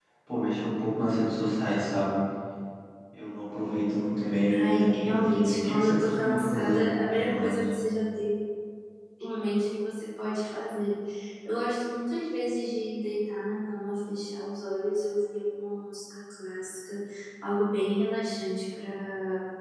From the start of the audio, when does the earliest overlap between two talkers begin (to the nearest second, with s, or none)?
4 s